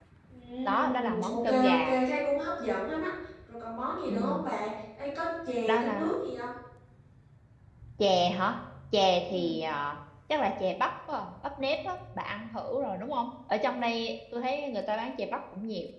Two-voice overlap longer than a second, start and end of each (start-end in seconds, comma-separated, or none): 0.7-1.9